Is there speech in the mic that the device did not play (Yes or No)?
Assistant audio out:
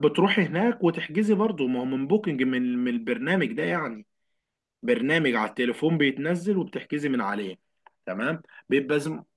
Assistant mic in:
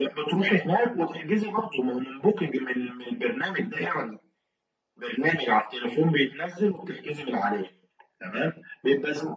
No